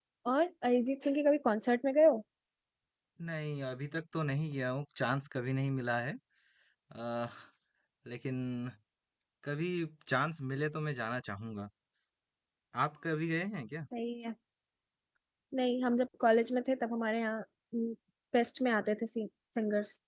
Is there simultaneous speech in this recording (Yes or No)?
No